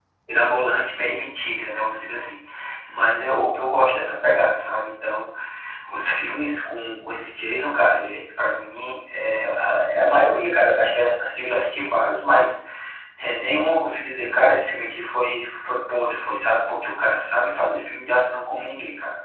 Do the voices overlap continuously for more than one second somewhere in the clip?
No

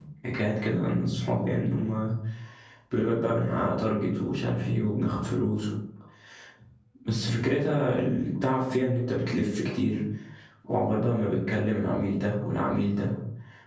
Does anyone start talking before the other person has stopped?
No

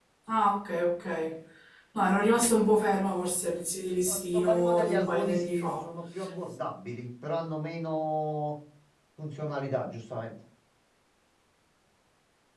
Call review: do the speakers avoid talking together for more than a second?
No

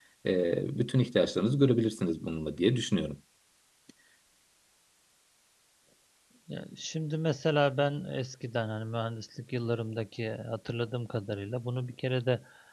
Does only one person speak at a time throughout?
Yes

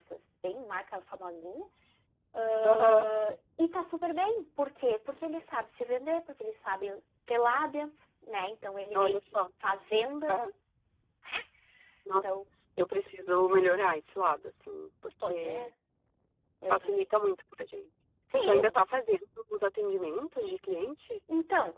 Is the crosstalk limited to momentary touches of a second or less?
Yes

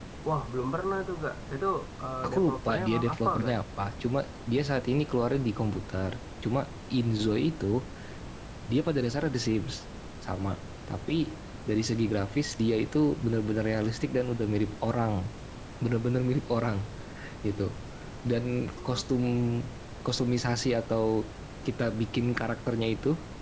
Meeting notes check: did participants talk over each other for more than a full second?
Yes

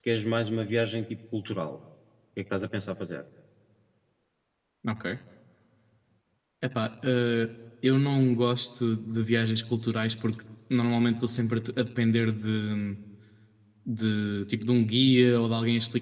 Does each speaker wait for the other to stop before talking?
Yes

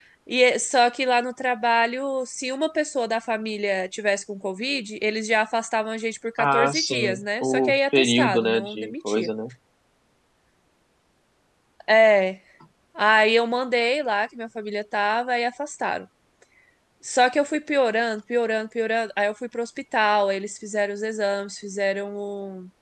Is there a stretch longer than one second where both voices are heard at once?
Yes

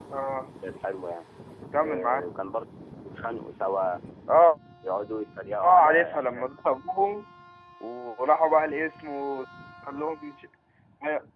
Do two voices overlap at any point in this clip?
Yes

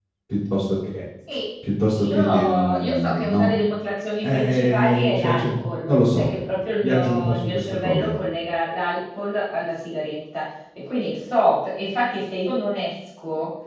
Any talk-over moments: Yes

